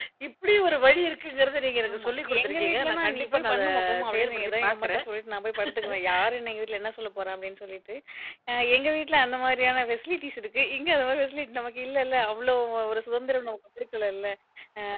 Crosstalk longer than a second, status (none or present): present